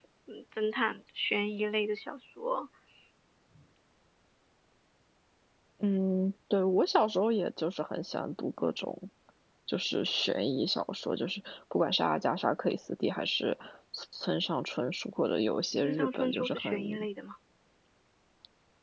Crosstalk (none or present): present